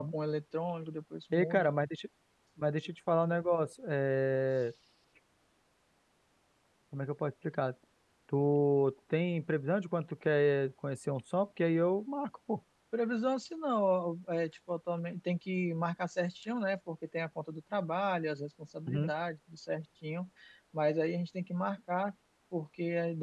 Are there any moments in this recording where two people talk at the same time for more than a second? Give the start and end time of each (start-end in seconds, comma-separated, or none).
none